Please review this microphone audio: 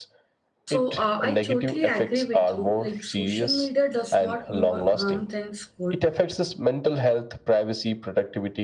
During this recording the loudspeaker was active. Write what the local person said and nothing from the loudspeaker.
So uh, I totally agree with you. Like social media does not more harm than good.

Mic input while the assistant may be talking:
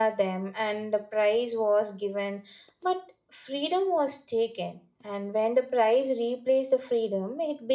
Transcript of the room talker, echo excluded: none

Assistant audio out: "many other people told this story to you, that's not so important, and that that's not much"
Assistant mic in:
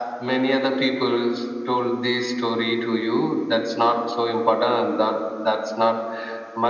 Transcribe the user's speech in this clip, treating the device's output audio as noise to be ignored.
none

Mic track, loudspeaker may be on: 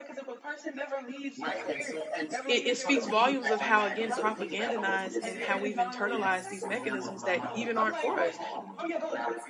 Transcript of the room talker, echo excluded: it, it speaks volumes of how again propagandized and how we've internalized these mechanisms that even aren't for us

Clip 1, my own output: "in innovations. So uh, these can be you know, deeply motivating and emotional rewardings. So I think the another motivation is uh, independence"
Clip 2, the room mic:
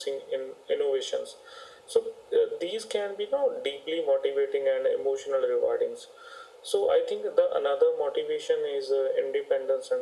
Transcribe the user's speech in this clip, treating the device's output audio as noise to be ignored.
none

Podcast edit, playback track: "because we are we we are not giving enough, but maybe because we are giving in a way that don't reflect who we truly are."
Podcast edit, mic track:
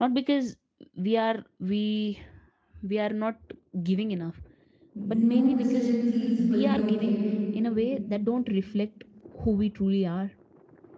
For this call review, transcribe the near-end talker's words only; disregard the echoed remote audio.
no decision feels fully okay

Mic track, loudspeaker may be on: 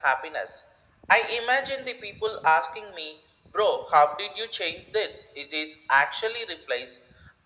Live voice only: none

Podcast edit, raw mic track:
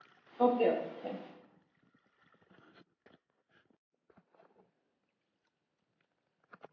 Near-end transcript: okay, okay, fine.

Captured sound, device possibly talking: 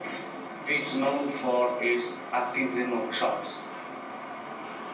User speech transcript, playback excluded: none

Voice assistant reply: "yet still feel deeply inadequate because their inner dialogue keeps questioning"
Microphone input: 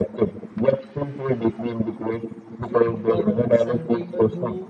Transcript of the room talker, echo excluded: treat others and people who

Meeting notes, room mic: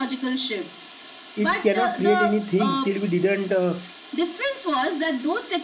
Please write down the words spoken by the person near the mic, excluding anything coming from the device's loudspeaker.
it cannot create anything till we didn't uh,

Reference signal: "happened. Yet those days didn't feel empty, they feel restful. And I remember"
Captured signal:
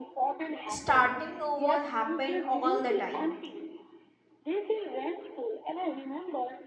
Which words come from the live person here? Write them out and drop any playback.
starting over happened all the time,

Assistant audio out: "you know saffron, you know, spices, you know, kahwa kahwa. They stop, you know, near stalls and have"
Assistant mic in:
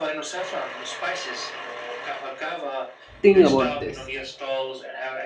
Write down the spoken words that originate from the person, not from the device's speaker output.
thing about this

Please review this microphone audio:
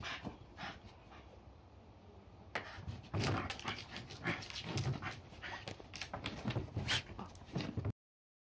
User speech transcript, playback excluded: none

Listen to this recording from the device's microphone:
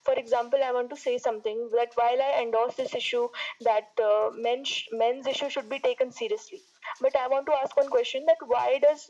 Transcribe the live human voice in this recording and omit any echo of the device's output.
none

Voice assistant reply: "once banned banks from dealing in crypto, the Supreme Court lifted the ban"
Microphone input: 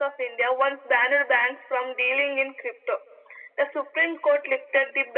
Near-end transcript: none

